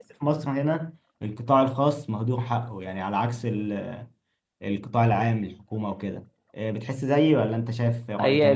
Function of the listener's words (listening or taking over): taking over